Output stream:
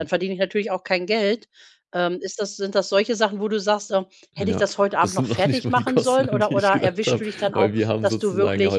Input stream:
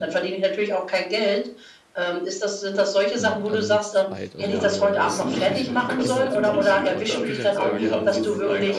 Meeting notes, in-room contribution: present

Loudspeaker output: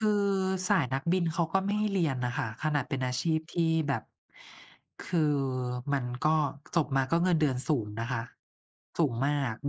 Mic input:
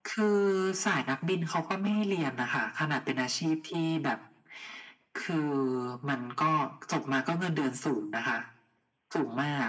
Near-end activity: none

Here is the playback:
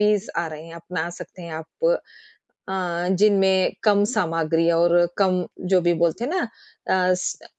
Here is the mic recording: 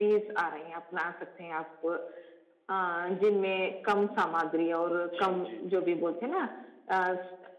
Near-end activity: present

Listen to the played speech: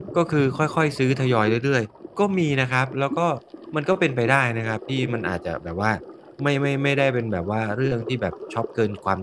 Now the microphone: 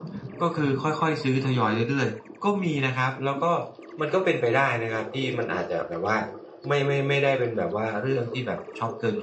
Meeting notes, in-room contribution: none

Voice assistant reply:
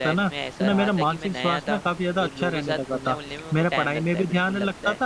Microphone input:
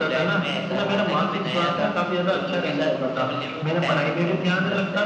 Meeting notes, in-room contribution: none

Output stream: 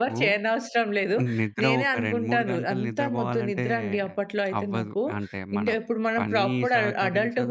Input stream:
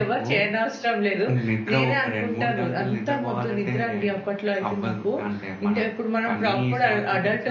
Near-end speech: none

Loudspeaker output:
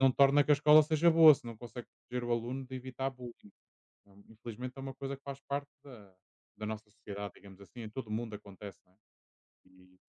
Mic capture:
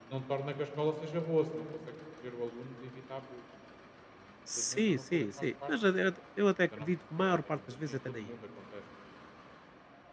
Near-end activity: present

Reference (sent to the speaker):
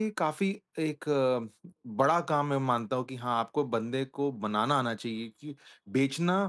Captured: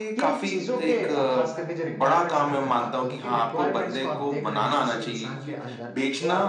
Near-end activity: present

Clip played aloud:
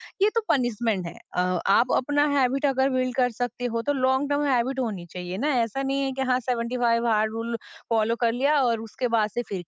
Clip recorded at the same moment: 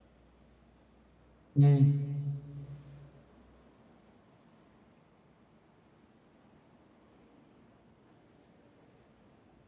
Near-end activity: present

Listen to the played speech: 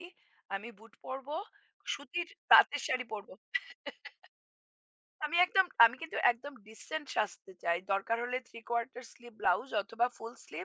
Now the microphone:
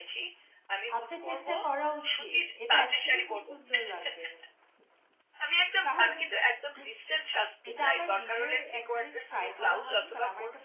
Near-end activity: present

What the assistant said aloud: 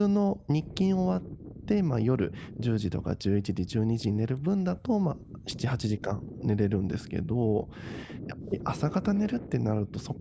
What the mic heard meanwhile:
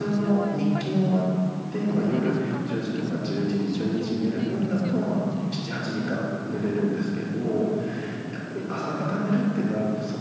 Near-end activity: present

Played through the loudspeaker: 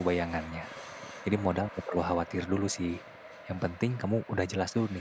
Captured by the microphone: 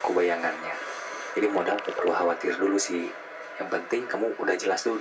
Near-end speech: none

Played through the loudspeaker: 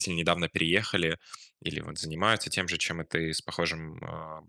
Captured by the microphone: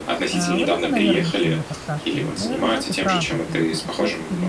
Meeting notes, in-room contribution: present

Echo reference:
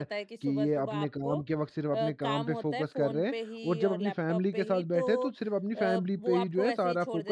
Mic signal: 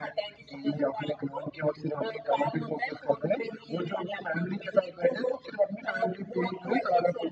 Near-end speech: none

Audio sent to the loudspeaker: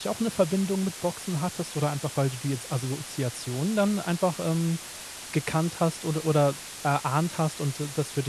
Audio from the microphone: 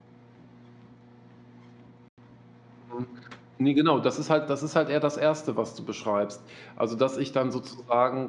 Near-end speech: present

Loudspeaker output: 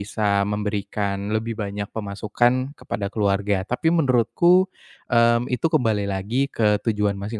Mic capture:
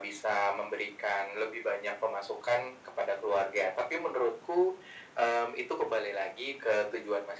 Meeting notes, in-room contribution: none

